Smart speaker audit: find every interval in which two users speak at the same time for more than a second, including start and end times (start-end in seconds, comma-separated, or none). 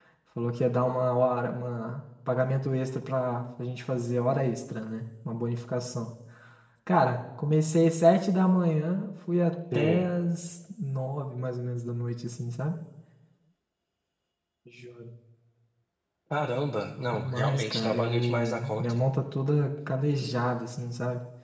17.1-18.9